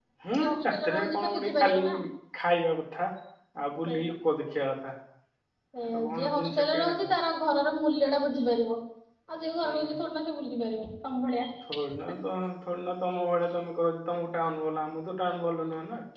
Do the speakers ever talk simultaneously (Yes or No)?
Yes